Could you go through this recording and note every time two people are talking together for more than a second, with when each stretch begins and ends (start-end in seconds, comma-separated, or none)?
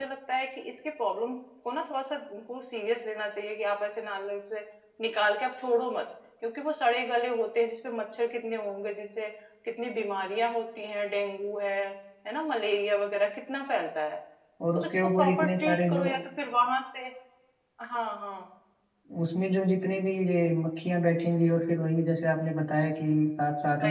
14.8-16.1